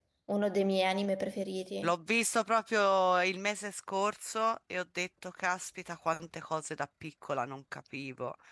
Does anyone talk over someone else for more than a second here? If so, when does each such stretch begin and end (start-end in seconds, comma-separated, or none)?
none